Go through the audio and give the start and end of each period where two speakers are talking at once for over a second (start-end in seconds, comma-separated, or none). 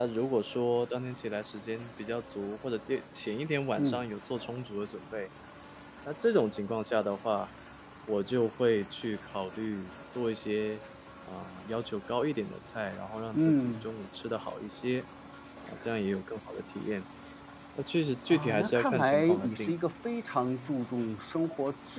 18.3-19.7